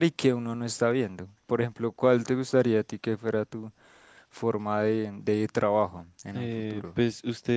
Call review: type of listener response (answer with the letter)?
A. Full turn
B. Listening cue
A